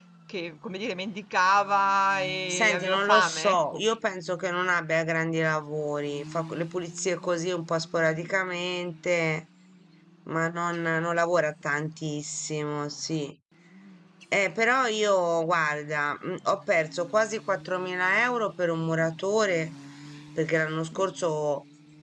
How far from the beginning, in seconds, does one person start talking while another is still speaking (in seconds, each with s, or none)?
2.5 s